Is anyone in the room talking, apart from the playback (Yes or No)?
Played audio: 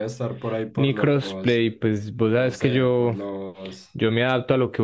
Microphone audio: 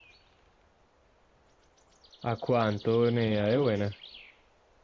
Yes